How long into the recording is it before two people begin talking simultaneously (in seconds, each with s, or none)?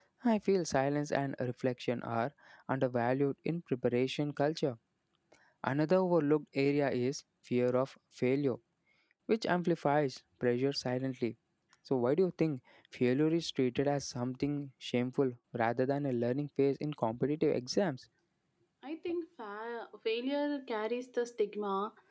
none